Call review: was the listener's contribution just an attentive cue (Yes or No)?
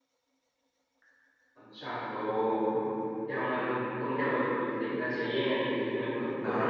No